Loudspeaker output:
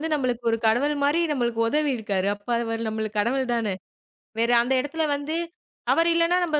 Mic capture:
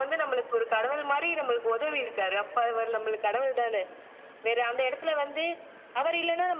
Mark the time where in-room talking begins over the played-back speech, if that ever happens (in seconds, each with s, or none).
none